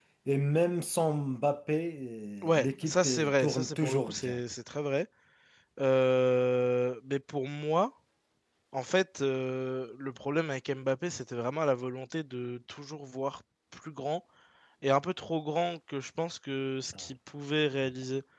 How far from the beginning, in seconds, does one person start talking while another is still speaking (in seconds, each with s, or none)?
2.6 s